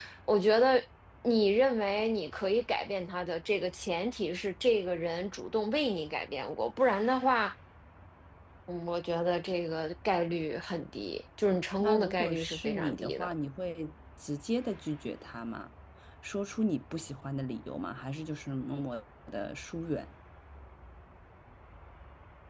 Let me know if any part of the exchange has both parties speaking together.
Yes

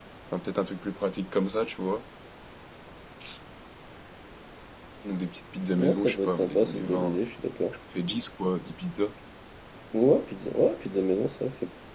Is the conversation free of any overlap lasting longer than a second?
No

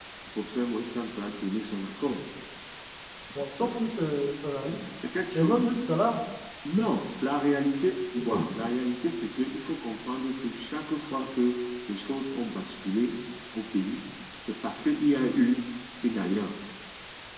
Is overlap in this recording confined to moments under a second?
Yes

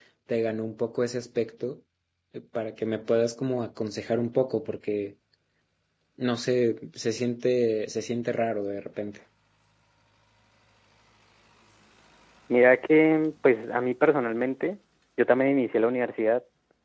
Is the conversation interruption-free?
Yes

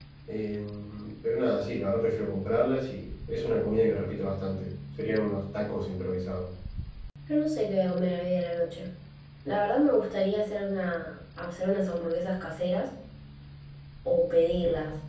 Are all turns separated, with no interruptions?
Yes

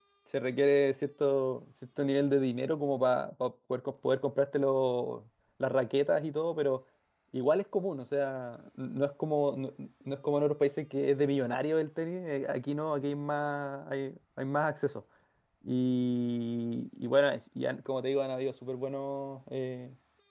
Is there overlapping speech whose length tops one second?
No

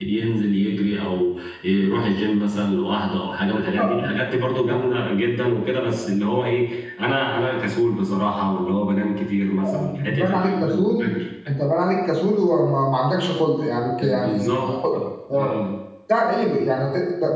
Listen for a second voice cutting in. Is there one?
Yes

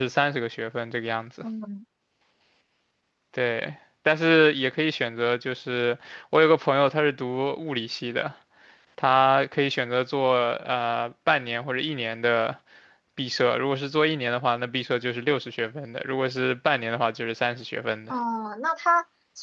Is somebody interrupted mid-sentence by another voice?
No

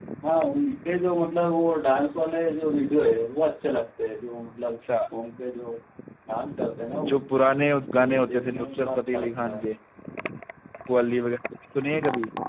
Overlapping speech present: Yes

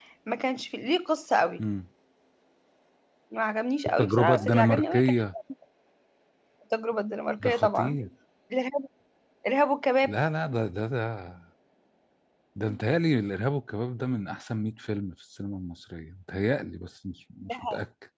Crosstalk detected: Yes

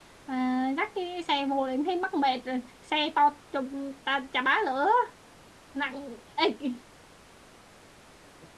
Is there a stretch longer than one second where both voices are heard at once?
No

